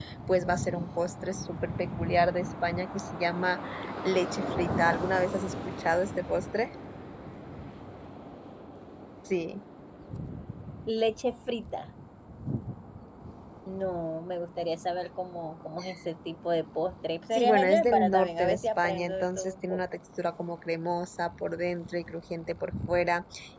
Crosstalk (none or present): present